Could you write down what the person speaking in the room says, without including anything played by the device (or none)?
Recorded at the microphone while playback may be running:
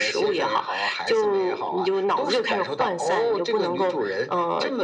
none